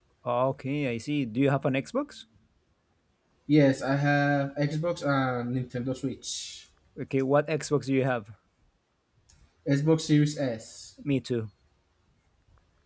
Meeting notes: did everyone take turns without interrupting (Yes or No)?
Yes